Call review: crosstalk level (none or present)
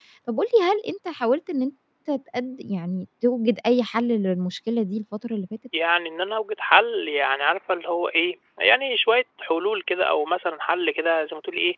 none